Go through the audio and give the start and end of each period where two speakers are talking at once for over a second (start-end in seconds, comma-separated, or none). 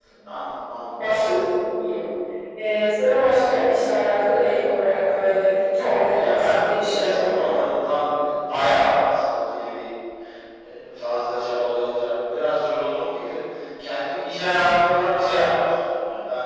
6.1-7.5